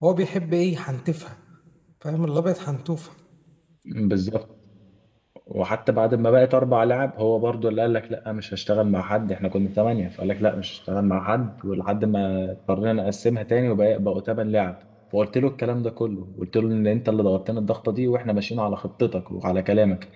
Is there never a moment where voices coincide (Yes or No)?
Yes